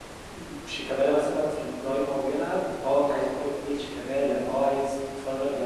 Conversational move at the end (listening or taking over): listening